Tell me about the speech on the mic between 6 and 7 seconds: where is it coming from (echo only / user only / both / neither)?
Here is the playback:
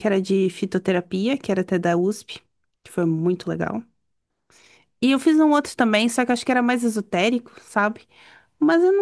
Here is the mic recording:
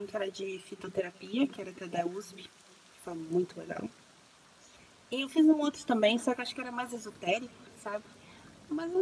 echo only